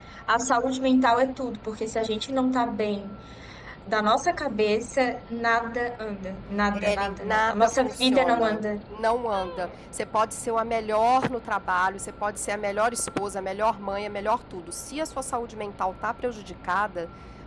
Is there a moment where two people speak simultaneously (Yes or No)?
Yes